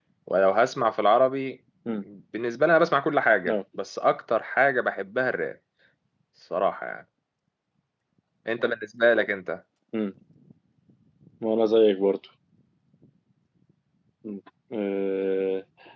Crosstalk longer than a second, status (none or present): none